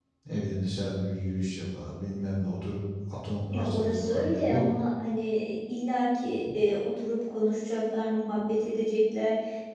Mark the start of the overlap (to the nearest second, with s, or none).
4 s